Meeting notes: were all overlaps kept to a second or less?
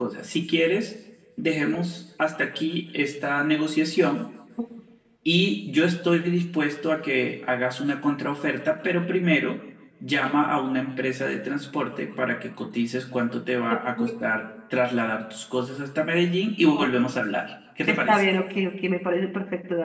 Yes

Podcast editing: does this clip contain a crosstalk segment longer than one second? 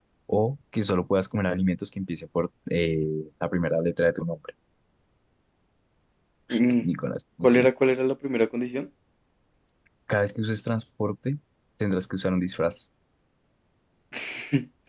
No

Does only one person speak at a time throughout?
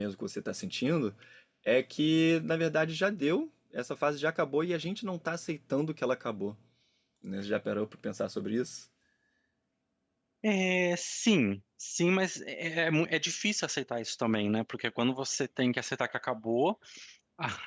Yes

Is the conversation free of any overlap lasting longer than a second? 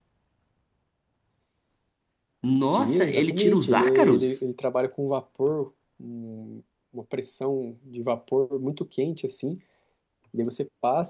No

